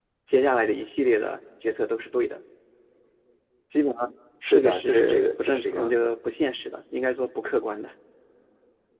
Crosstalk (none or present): present